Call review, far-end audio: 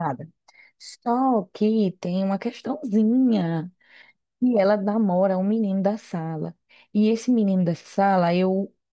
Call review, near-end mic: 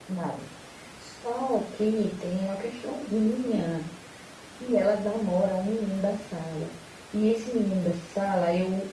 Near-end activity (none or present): none